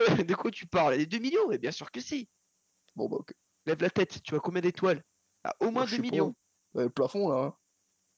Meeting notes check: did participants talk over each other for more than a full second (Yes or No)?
No